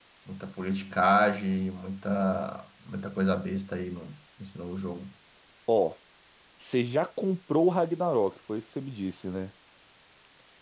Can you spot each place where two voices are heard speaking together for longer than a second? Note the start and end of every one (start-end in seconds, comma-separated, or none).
none